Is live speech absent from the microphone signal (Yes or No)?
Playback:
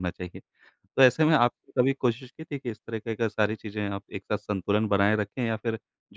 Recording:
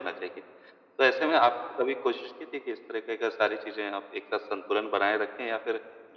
Yes